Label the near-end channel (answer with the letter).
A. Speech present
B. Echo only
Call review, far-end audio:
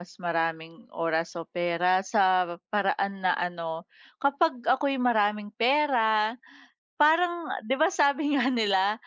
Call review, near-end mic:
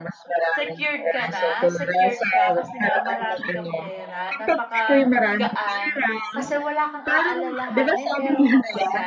A